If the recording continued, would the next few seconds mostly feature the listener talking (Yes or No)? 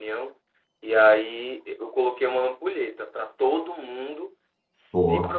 No